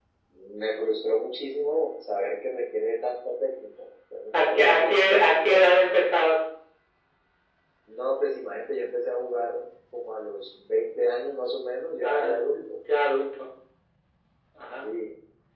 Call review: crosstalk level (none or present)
present